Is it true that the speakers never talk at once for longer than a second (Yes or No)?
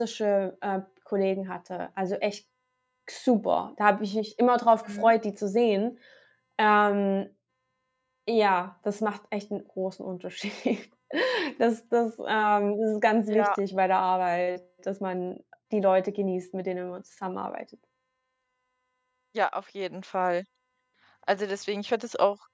Yes